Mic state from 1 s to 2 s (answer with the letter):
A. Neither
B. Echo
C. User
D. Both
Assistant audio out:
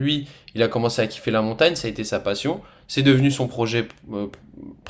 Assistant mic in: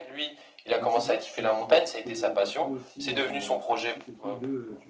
D